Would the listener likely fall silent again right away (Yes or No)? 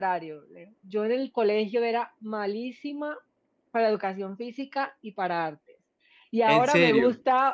Yes